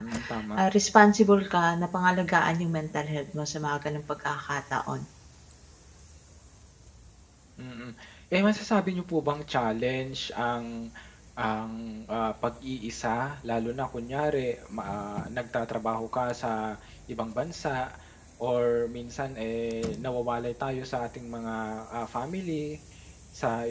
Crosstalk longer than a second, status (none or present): none